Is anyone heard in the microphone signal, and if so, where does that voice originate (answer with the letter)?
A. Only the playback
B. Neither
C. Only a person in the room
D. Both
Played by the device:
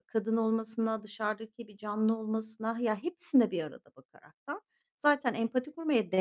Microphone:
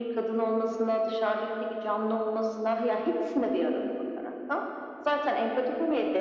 A